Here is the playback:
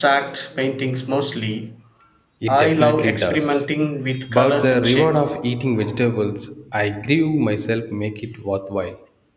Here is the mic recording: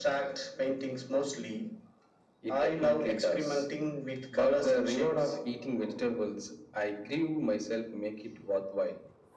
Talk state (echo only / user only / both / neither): echo only